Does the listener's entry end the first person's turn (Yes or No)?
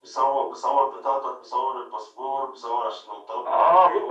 Yes